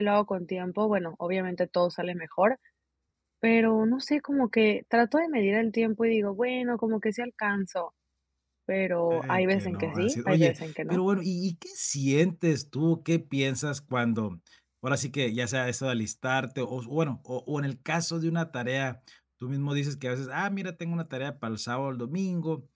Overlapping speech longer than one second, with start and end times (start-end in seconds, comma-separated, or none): 9.1-11.0